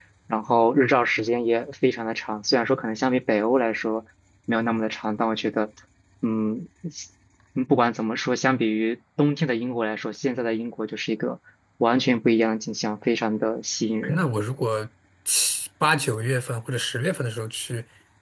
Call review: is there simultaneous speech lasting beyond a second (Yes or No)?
No